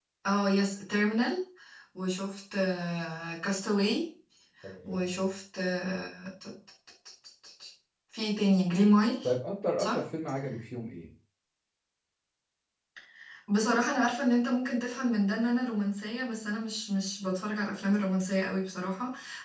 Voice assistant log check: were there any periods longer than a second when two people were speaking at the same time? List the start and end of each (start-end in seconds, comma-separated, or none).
none